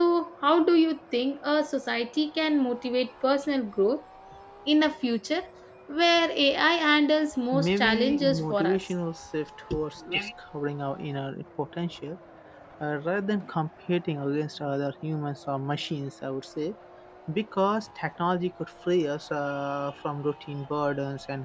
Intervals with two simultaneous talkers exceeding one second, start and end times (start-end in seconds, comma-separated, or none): 7.5-8.8